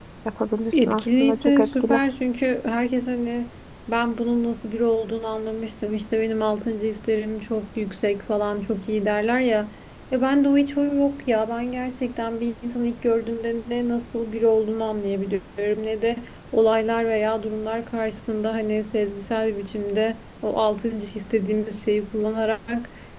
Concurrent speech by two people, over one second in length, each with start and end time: 0.7-2.0

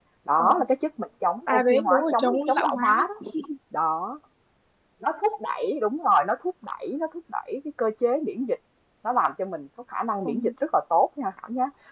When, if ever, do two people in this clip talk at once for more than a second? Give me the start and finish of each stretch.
1.5-3.0

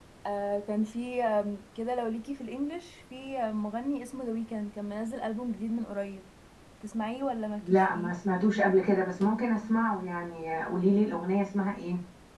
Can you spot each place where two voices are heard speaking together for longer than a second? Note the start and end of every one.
none

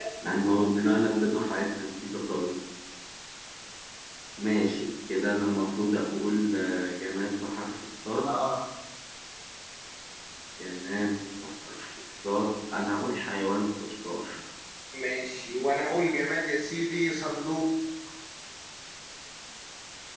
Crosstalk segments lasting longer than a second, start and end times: none

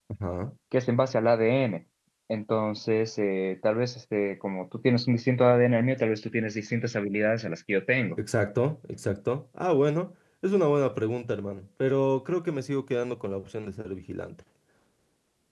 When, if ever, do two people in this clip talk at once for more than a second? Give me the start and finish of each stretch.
none

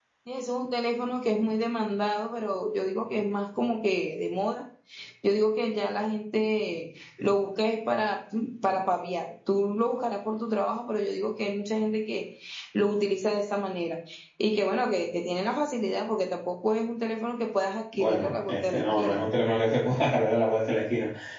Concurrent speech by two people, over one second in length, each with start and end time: 17.9-19.2

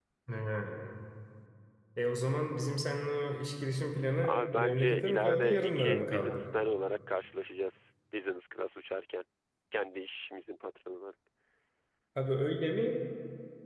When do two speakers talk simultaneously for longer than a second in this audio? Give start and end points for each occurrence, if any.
4.2-6.4

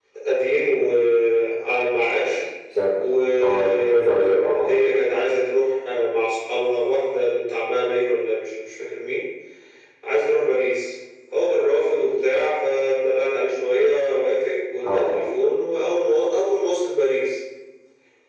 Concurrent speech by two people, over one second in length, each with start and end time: 3.4-4.8

